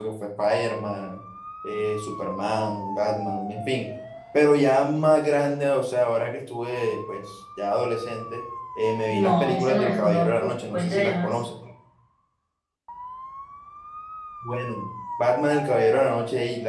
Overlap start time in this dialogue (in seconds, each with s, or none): 9.1 s